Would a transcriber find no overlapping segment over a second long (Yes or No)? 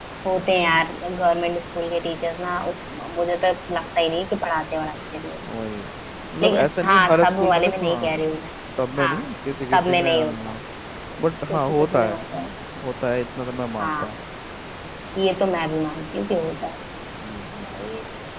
No